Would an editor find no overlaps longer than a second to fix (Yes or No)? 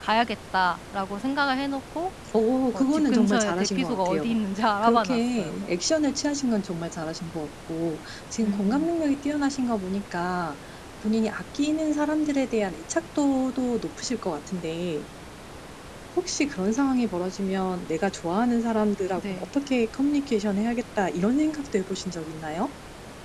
No